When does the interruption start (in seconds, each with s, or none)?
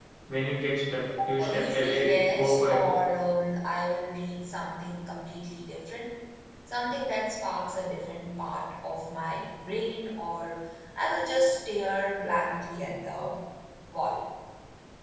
1.4 s